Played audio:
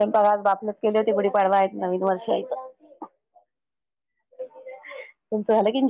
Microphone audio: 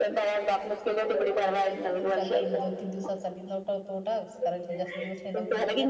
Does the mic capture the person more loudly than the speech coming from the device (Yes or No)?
No